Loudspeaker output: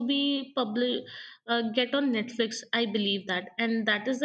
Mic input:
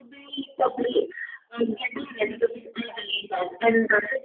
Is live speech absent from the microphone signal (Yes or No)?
Yes